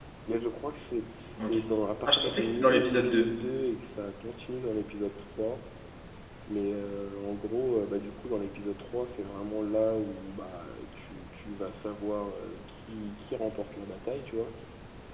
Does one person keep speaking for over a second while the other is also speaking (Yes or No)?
Yes